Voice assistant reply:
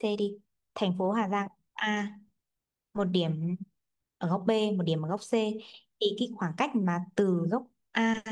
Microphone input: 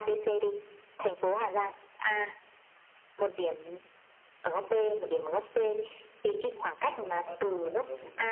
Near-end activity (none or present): present